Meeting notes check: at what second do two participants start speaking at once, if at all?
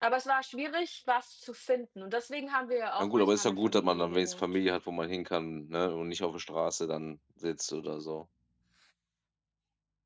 3.0 s

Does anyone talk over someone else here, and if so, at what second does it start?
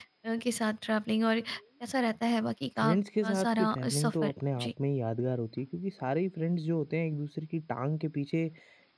2.8 s

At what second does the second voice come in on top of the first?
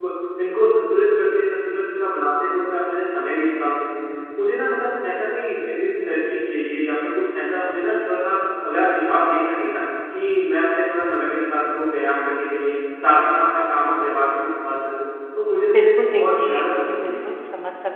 15.6 s

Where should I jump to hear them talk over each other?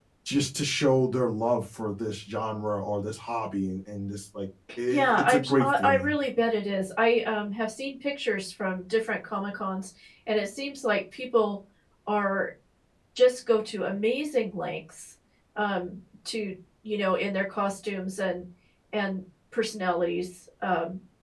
4.9 s

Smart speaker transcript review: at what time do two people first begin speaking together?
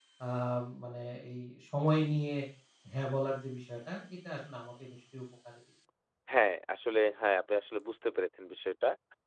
none

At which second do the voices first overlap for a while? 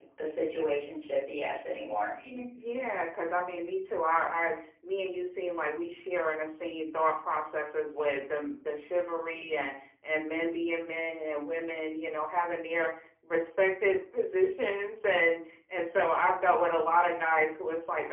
none

